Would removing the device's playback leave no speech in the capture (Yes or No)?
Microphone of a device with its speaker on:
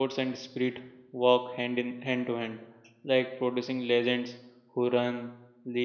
No